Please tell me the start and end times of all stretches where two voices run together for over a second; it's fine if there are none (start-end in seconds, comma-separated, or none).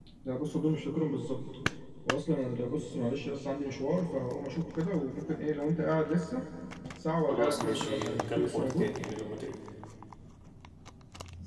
7.3-8.9